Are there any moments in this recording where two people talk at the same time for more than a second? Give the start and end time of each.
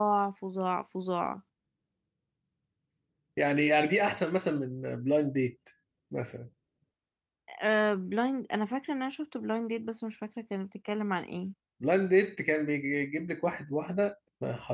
none

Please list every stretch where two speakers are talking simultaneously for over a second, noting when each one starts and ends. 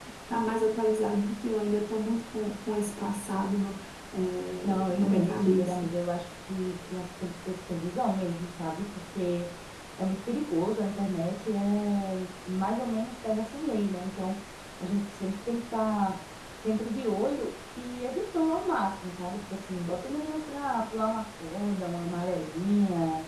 4.6-5.9

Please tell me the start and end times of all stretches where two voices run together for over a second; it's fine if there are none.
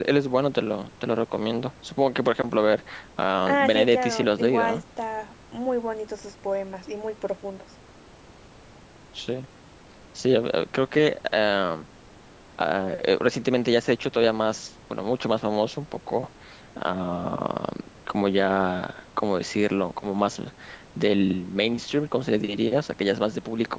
3.4-4.8

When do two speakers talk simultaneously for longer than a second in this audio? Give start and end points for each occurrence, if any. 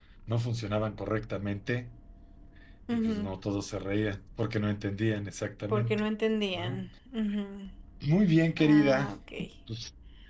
none

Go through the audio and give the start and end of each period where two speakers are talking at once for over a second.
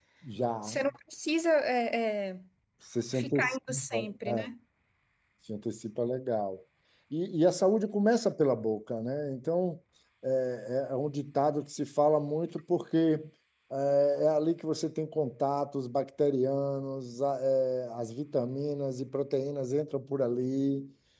3.1-4.5

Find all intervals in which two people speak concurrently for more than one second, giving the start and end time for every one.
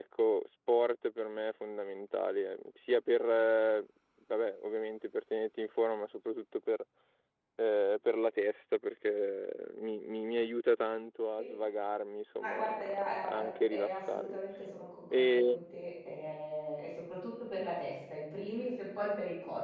12.4-14.4

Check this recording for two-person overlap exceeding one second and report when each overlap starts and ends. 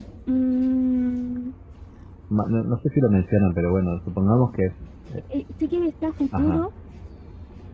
none

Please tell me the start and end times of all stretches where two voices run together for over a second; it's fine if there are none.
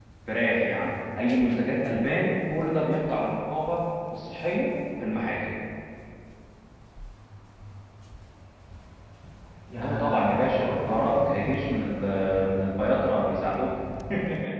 9.8-11.2

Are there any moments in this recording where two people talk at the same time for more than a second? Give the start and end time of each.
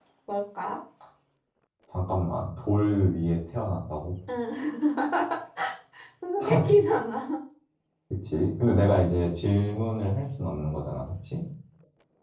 none

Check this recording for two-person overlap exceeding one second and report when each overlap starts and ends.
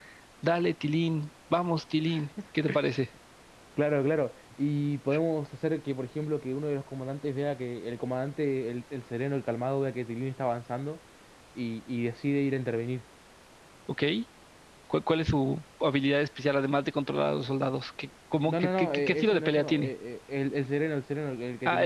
18.4-19.9

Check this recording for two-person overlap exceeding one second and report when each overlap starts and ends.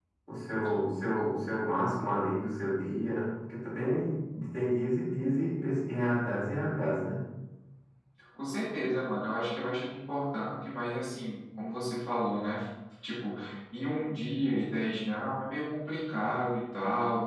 none

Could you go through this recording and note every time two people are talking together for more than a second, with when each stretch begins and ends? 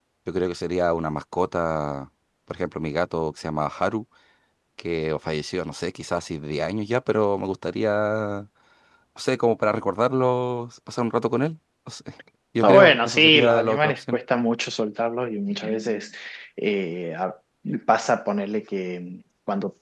12.6-14.2

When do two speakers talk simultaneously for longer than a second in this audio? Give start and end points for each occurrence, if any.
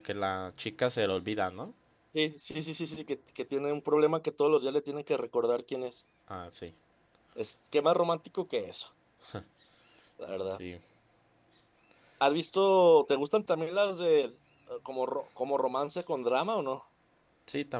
none

